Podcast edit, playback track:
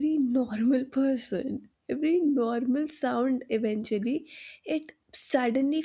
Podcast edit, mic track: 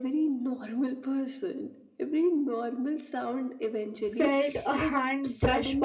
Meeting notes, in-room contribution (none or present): present